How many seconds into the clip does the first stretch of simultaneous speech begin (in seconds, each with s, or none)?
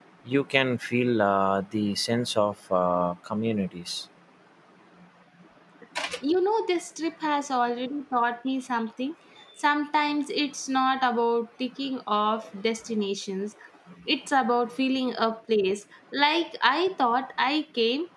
none